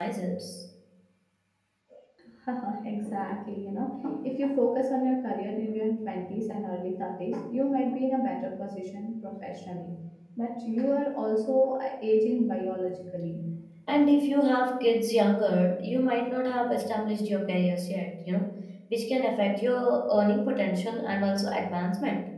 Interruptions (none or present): none